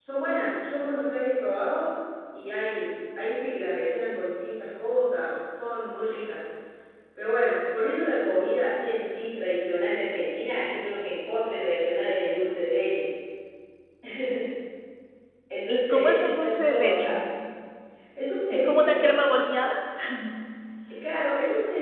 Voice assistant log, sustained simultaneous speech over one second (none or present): present